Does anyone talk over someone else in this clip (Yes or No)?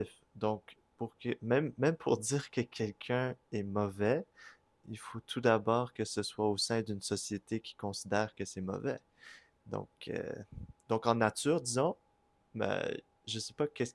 No